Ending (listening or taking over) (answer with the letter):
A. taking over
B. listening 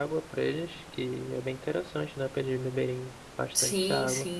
A